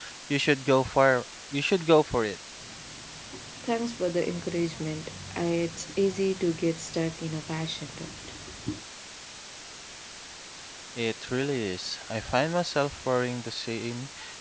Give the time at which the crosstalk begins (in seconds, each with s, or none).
none